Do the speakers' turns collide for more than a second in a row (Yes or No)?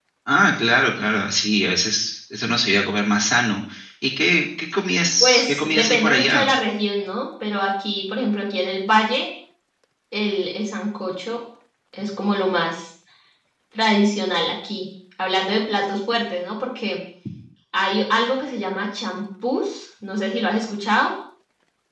Yes